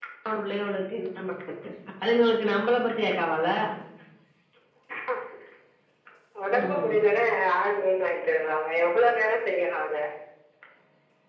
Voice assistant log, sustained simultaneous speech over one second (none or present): none